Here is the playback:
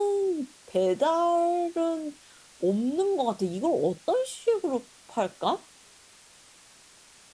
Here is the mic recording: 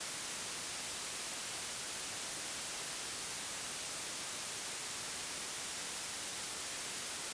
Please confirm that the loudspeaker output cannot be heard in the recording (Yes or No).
Yes